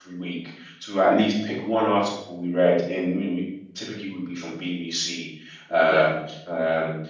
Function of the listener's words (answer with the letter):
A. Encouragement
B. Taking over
A